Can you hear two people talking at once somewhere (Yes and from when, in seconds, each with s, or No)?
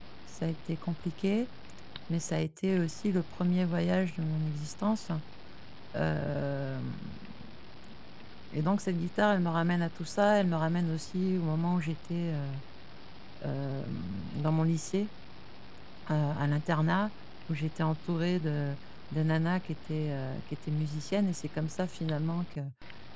No